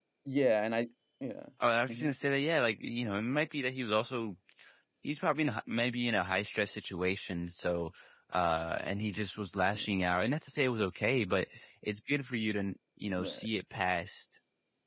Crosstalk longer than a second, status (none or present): none